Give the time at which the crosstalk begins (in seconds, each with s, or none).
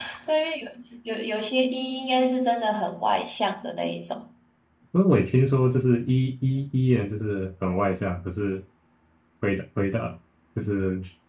none